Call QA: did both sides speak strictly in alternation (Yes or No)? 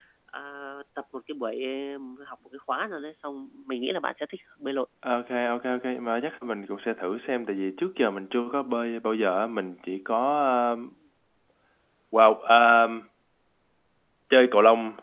Yes